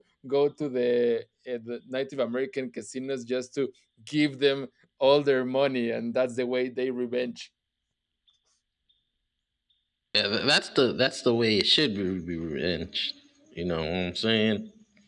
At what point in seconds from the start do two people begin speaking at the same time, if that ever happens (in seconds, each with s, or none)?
none